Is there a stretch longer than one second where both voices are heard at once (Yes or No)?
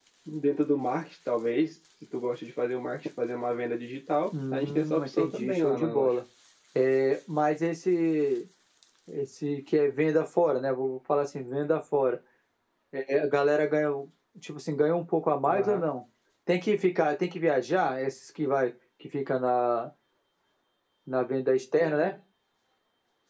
Yes